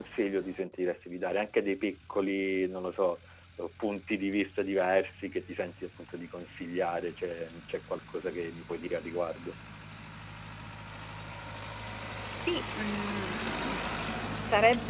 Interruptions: none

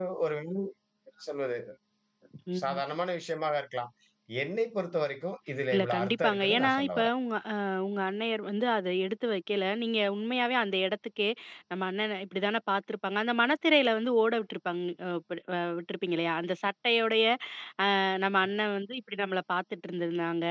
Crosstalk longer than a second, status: present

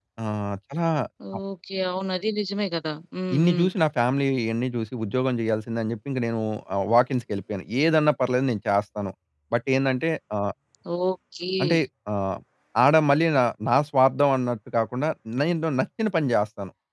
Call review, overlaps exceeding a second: none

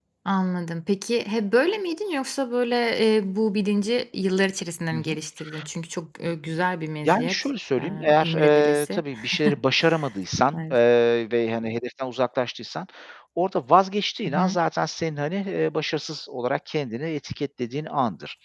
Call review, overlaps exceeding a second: present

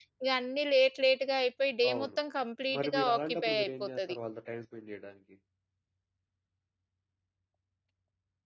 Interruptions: present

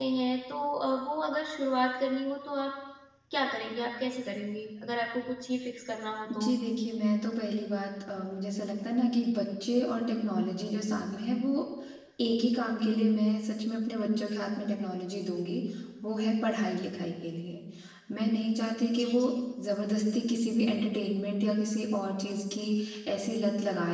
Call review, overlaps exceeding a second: none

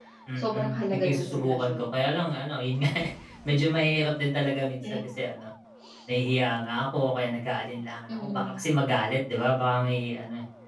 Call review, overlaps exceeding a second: present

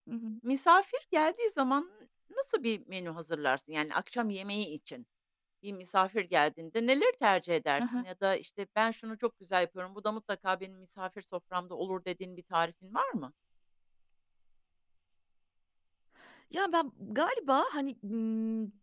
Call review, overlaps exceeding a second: none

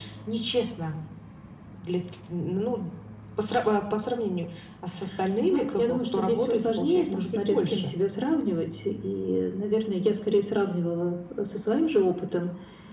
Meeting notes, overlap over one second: present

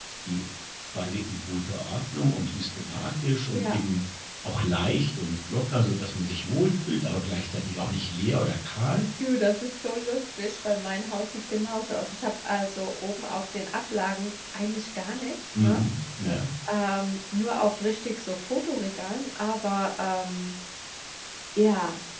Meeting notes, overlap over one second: none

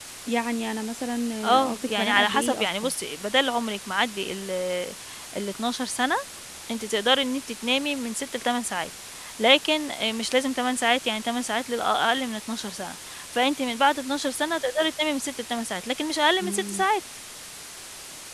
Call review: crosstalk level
present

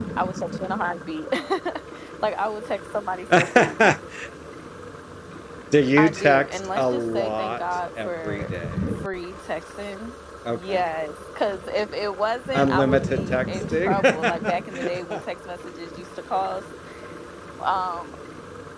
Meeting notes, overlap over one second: present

